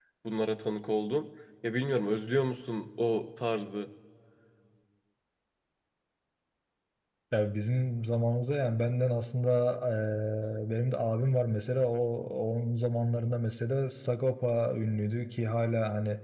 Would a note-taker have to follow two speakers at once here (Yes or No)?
No